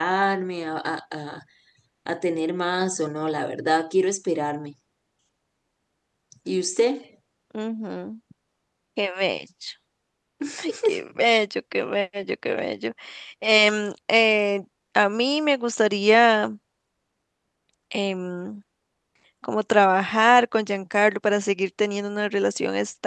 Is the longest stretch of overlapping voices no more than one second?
Yes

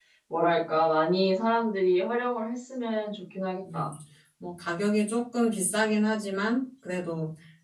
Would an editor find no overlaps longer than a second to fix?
Yes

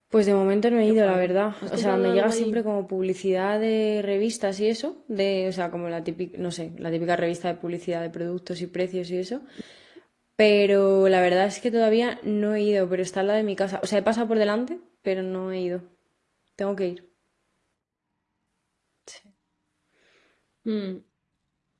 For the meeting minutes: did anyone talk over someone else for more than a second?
Yes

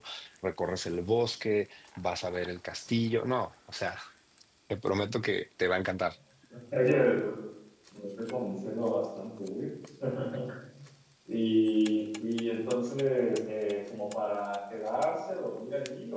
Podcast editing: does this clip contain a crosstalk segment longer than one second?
No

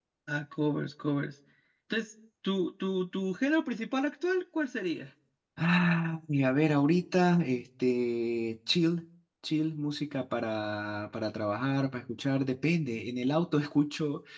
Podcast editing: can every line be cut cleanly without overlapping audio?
Yes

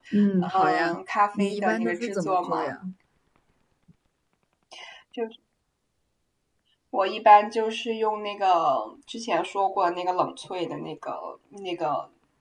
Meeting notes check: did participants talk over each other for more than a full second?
Yes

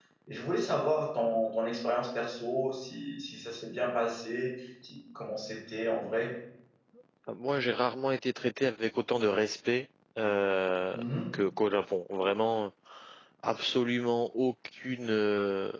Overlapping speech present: No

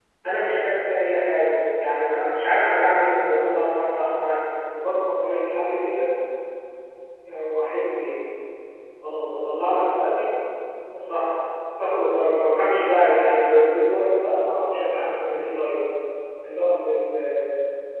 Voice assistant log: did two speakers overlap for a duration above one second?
No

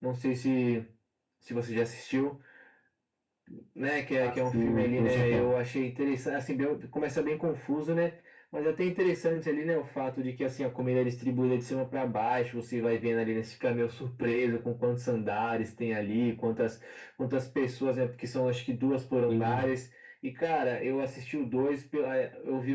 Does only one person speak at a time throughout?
No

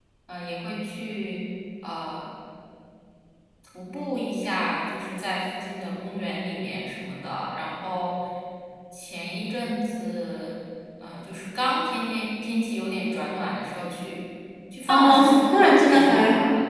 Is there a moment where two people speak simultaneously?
Yes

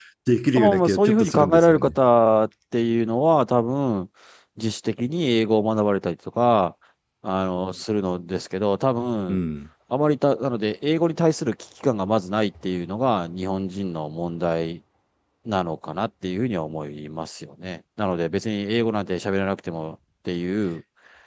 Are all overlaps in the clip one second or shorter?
No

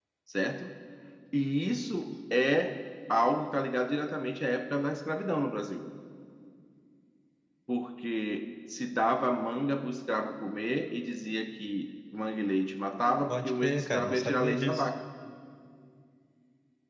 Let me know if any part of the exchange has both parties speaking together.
Yes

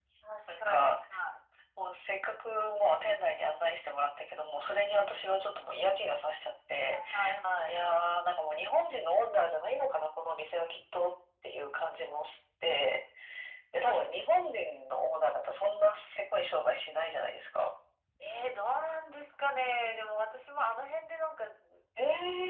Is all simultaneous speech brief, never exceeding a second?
Yes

